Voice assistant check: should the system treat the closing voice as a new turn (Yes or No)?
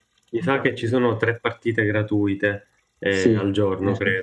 Yes